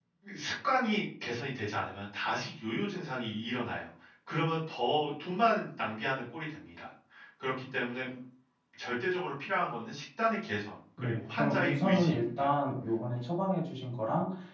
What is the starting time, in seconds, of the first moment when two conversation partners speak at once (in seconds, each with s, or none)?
11.0 s